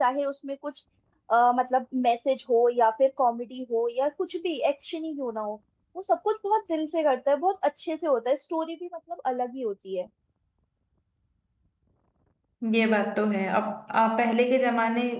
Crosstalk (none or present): none